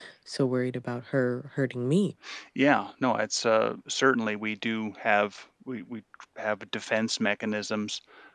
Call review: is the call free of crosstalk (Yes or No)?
Yes